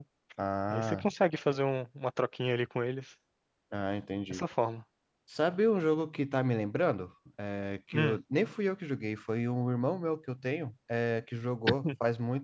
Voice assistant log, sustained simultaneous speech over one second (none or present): none